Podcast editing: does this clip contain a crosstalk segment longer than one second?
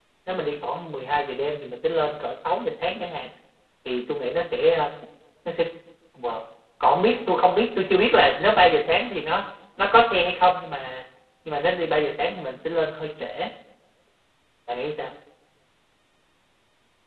No

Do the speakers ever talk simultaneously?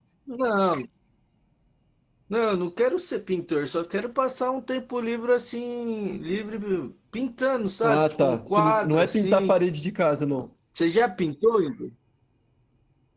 Yes, from 7.8 s

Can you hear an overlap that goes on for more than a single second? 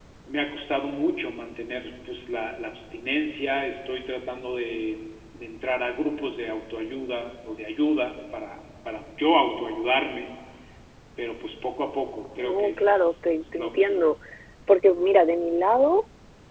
Yes, from 12.4 s

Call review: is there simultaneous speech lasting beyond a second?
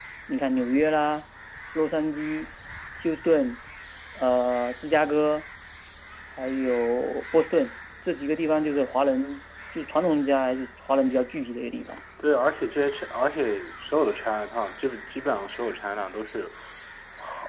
No

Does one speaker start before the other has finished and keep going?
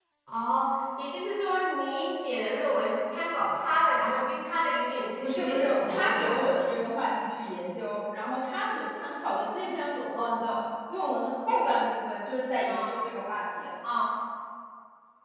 Yes, from 5.2 s

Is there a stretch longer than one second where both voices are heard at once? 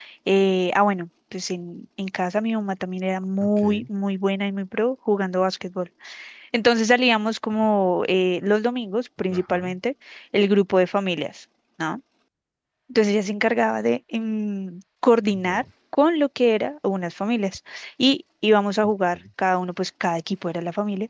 No

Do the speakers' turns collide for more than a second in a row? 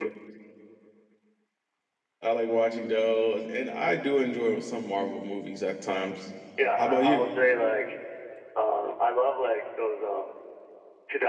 No

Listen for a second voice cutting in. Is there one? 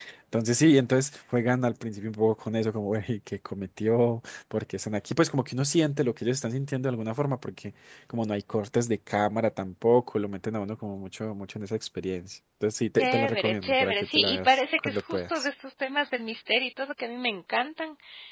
Yes, from 13.0 s

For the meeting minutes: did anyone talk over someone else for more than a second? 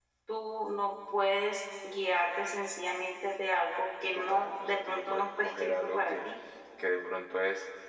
Yes, from 4.1 s

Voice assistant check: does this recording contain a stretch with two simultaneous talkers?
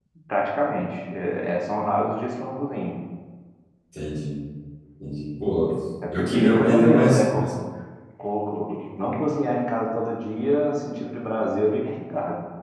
Yes, from 6.1 s

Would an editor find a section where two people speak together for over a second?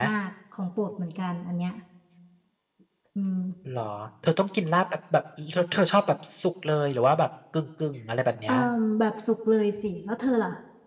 No

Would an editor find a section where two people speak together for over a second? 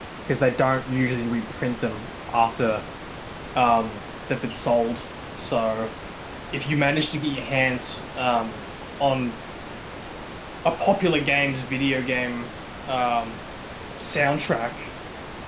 No

